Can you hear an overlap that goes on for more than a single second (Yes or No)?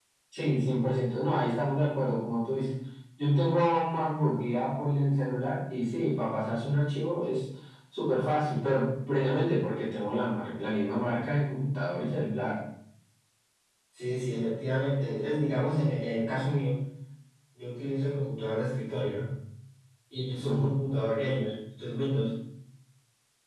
No